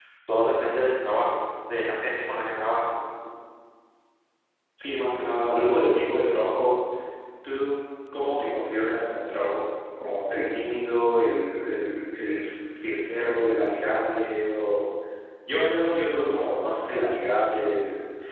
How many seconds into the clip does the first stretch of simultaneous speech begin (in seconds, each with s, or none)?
none